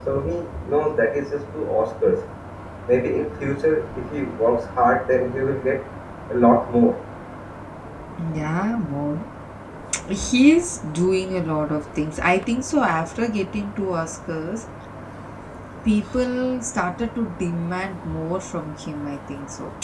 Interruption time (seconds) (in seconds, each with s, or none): none